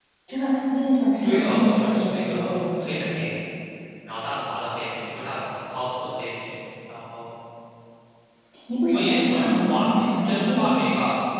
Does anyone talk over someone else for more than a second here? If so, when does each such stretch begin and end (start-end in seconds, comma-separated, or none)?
1.2-3.2, 8.9-10.7